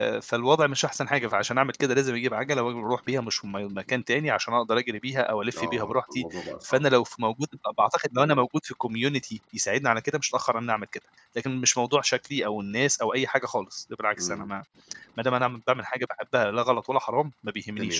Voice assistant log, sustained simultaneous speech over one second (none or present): present